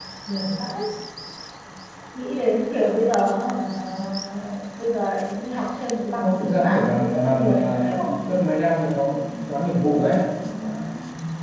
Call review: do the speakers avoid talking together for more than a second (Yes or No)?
No